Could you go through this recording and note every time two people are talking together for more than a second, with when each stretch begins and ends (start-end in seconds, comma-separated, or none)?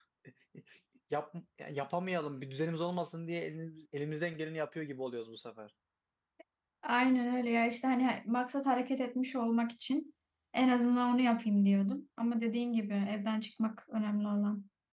none